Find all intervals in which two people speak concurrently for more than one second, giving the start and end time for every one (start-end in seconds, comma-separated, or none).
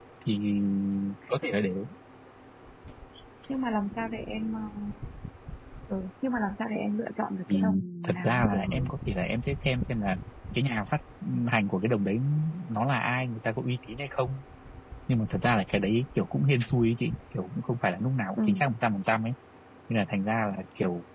7.5-8.8